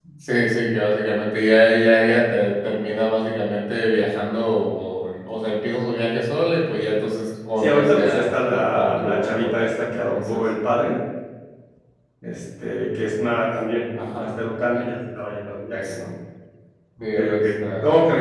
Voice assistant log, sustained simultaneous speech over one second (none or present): present